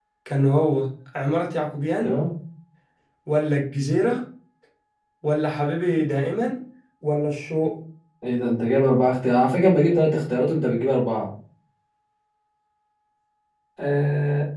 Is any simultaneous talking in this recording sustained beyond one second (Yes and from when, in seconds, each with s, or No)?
No